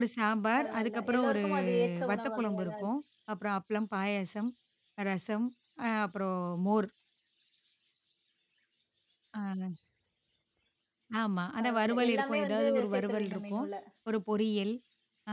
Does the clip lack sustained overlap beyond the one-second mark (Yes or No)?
No